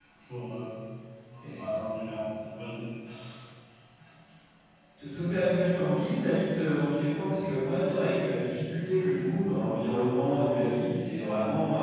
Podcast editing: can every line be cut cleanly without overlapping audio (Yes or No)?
Yes